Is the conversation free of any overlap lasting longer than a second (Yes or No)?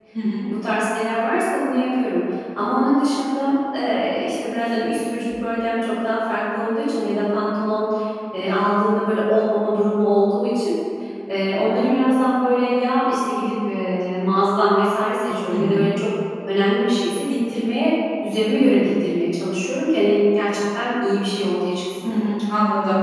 Yes